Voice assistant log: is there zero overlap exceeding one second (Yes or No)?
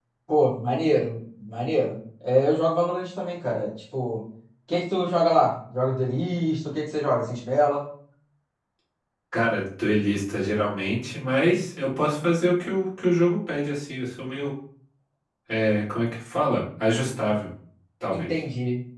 Yes